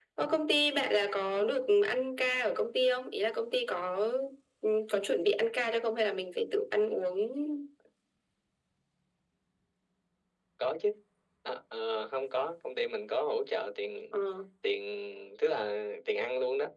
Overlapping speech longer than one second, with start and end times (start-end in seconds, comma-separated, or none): none